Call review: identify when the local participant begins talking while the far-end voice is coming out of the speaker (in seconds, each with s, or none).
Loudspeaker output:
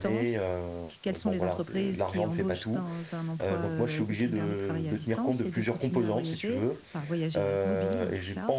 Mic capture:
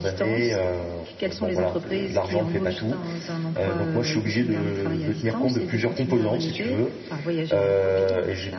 none